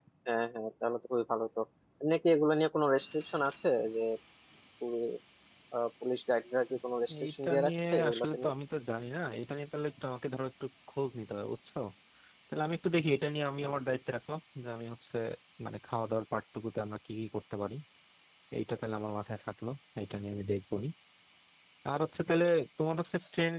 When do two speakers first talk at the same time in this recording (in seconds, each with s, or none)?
7.1 s